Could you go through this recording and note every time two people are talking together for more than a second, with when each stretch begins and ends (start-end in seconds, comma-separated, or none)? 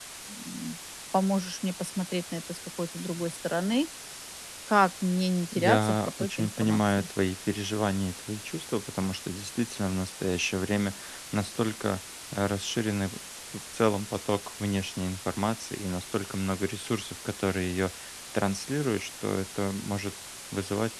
5.5-7.1